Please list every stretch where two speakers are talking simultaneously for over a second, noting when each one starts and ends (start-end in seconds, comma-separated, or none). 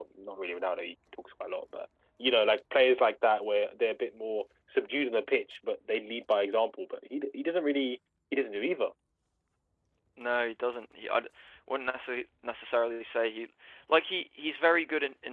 none